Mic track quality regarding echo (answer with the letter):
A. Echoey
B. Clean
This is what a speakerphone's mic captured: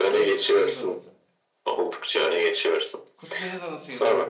A